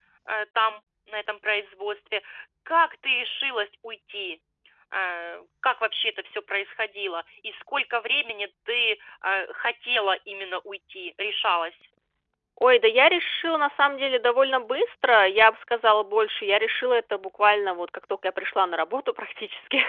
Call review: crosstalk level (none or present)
none